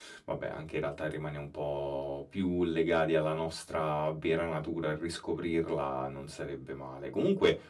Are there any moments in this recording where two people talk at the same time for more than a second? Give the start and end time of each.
none

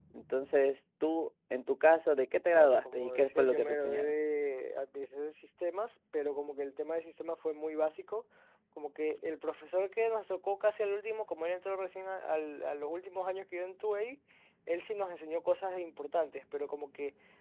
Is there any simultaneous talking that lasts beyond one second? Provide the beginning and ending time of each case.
2.5-4.2

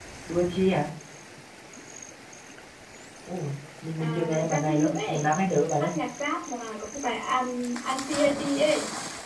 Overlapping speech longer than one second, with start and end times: 4.0-5.3

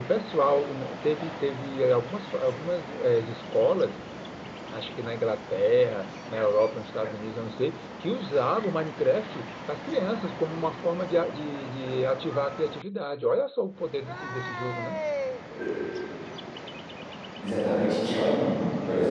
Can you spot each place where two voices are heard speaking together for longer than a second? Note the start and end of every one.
none

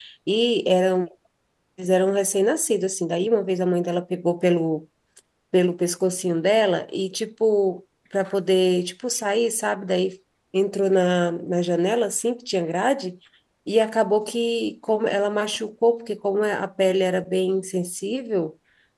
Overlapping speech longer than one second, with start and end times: none

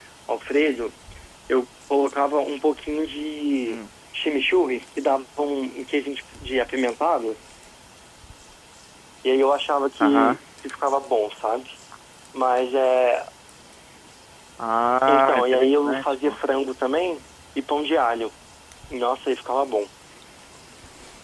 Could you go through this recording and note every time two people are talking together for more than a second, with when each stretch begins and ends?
15.1-16.4

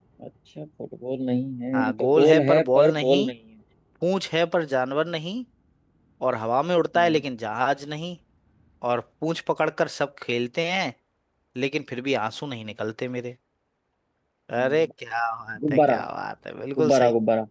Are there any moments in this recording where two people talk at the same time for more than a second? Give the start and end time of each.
1.7-3.3

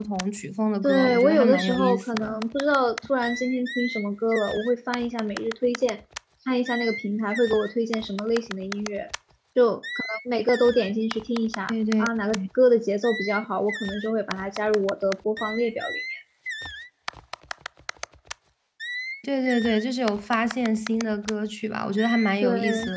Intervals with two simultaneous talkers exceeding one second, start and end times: 0.8-2.4

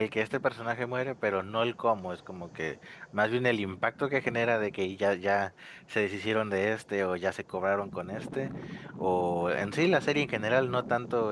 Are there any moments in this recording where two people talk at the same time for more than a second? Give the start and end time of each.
none

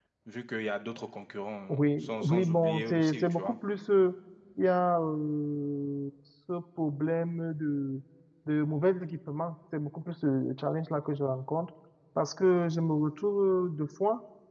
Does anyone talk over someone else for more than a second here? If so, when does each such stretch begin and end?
1.7-3.5

